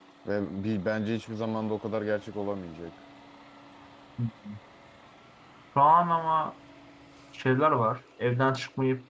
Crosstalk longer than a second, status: none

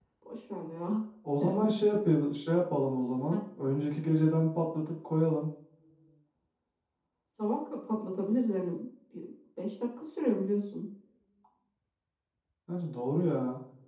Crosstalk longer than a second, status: none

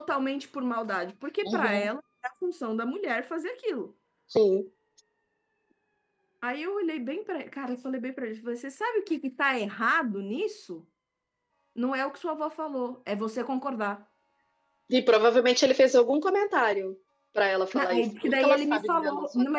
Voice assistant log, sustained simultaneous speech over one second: present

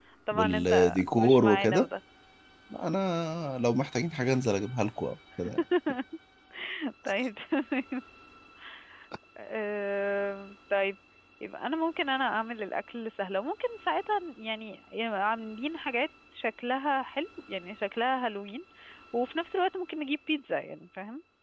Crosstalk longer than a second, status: present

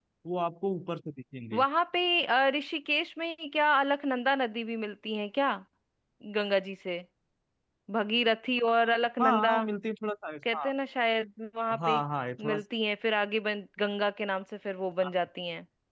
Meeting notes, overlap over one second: none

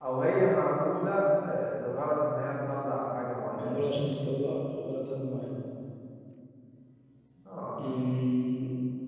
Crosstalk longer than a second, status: none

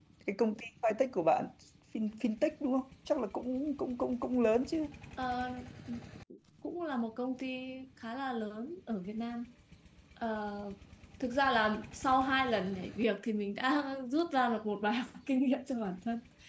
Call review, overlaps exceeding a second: none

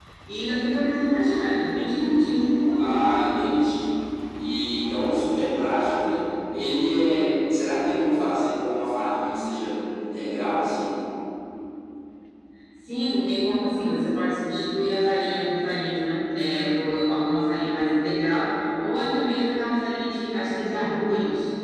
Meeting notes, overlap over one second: none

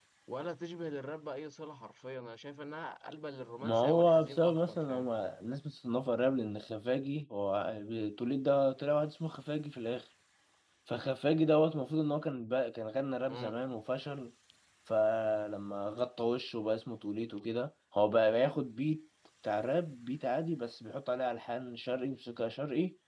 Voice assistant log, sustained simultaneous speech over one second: present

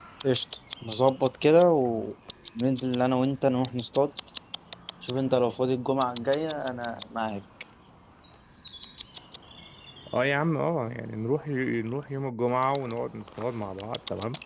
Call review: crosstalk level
none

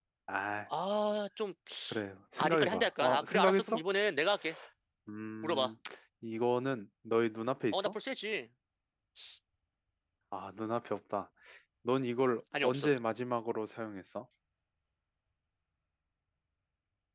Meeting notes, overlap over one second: present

